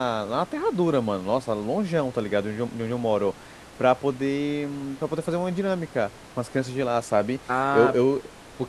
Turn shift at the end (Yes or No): Yes